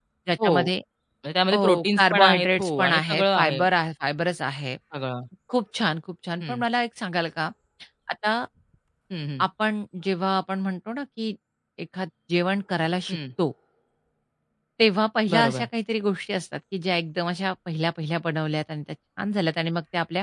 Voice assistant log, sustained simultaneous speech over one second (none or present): present